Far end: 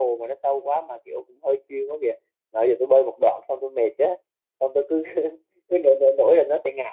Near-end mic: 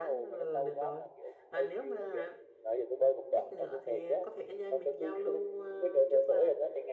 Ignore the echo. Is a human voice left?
Yes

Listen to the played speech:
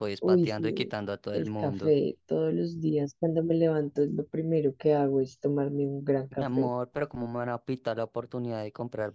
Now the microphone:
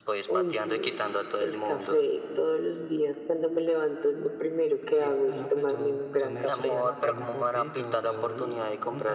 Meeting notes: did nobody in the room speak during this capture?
No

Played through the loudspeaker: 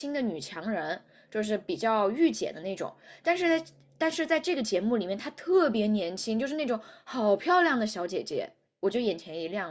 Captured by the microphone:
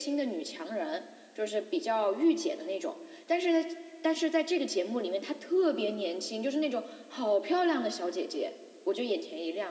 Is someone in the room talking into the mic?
No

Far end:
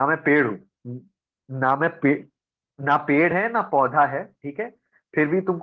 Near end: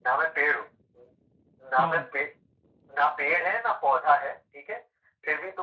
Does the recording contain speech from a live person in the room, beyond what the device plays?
Yes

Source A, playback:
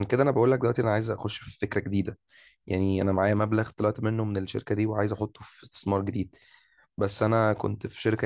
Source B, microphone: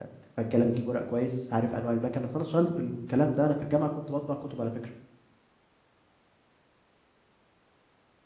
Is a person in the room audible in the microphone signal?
Yes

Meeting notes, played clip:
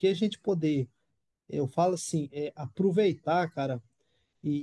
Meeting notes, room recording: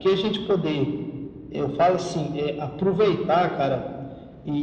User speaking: No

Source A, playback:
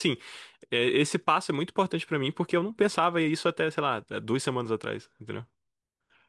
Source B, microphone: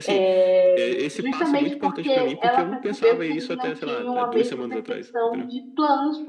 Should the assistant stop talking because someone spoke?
Yes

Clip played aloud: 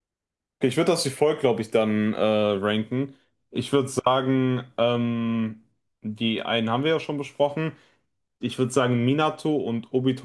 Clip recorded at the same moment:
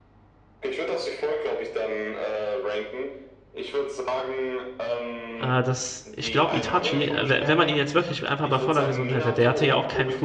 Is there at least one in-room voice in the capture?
Yes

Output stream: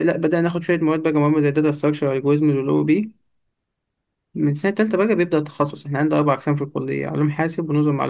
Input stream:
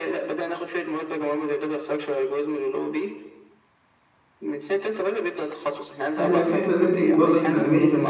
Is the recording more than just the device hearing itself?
Yes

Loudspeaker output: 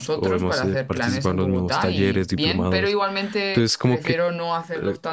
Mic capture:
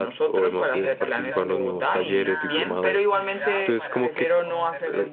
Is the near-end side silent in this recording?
No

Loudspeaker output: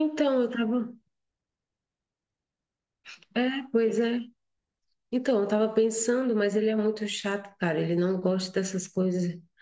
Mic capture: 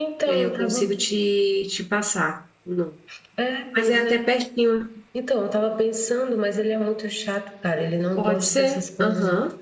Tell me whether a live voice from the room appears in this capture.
Yes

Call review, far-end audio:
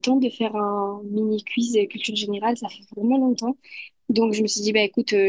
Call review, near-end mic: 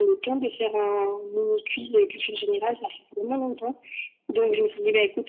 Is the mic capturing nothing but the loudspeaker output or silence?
Yes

